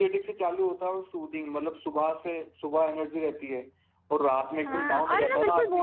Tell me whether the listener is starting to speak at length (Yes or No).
Yes